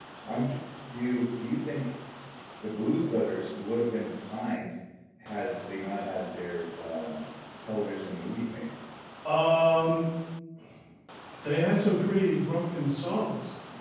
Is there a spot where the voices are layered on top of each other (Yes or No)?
No